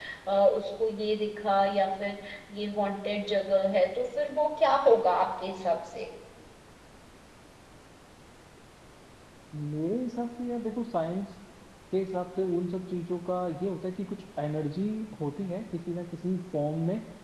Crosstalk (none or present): none